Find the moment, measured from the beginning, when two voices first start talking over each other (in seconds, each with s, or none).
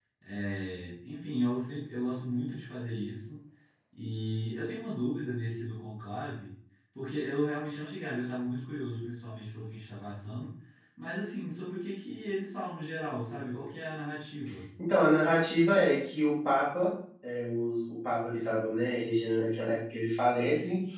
none